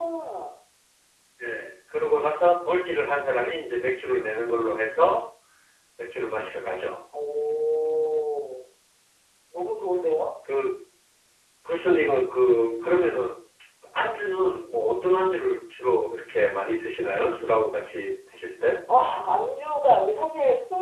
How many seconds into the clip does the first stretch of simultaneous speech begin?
none

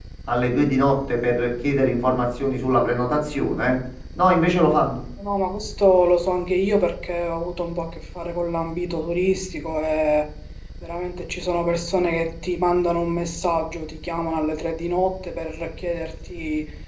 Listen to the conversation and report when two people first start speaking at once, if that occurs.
none

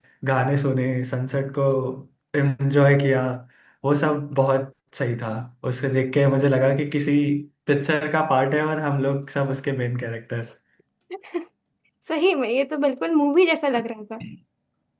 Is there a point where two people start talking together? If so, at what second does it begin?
none

